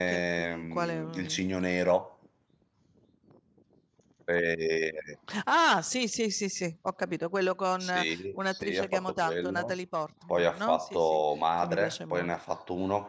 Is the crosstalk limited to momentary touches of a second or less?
No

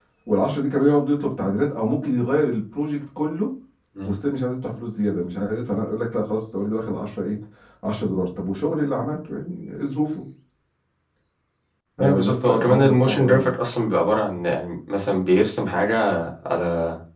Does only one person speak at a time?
No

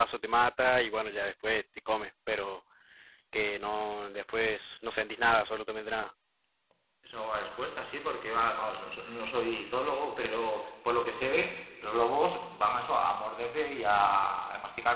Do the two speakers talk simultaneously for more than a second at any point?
No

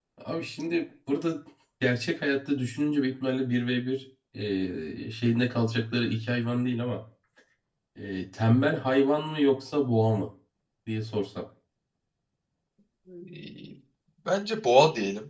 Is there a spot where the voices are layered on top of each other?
No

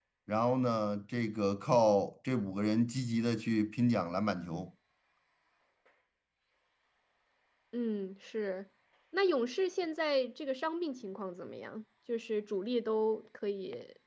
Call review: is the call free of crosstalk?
Yes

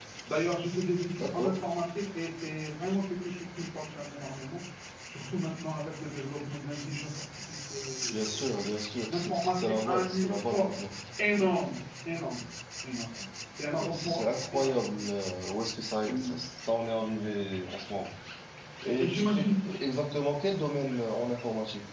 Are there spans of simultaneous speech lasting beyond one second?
Yes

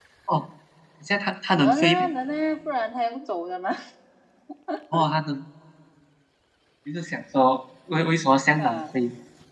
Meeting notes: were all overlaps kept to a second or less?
Yes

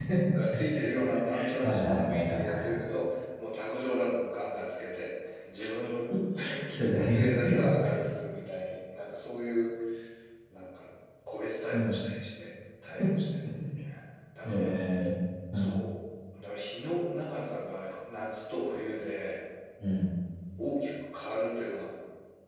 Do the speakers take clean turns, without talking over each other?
No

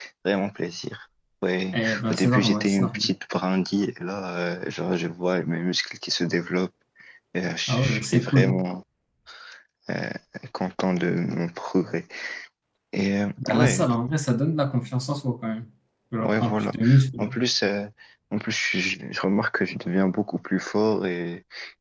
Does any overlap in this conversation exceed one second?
Yes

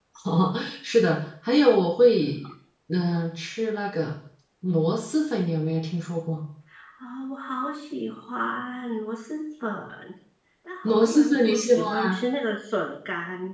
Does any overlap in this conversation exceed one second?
Yes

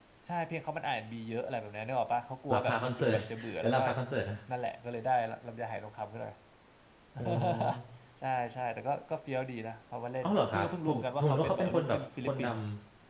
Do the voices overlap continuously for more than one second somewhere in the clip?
Yes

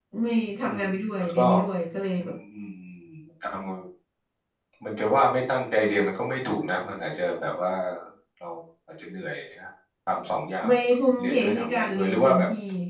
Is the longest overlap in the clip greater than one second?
Yes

